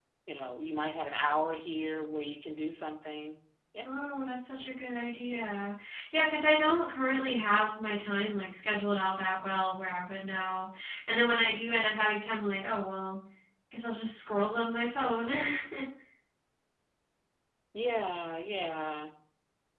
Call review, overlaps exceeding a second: none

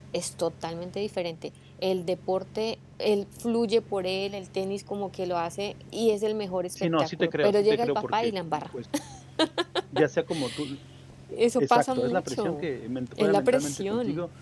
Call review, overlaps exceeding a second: present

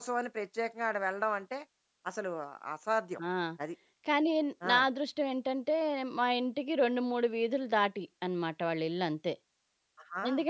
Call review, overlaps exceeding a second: none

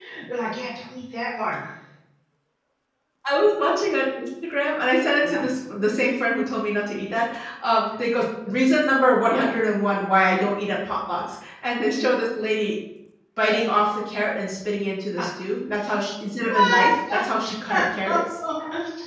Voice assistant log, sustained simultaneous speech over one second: none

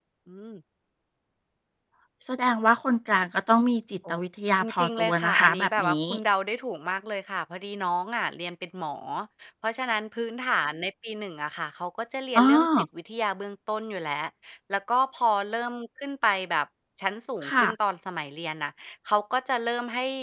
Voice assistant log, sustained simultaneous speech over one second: present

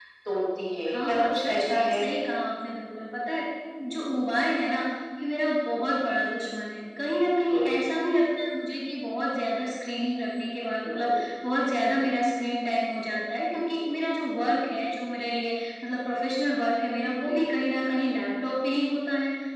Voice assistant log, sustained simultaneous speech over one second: present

